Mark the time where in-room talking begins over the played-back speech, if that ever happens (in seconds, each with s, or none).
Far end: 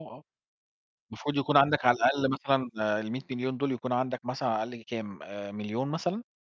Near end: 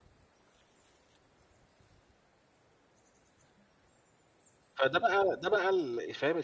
4.7 s